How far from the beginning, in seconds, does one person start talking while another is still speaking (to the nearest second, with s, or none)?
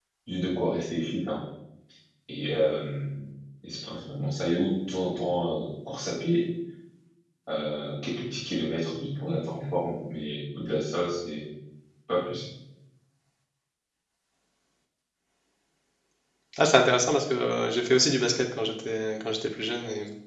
none